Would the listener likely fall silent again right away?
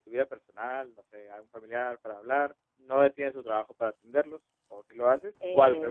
No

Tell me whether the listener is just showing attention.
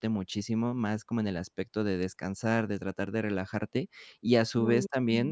Yes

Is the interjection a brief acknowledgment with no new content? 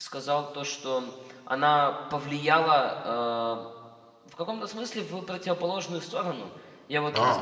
Yes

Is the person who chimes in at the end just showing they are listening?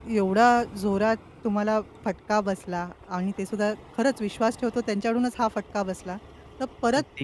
Yes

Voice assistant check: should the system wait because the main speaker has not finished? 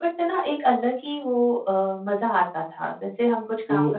No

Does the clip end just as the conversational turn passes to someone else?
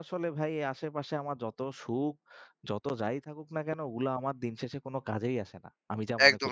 Yes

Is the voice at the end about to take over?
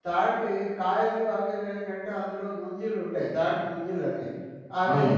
No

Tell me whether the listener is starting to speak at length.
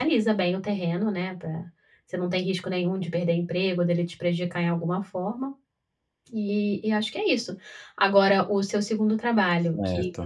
No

